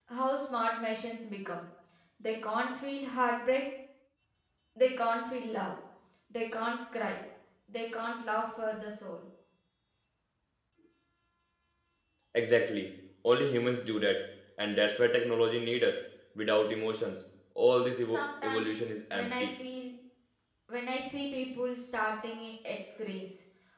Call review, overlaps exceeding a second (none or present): present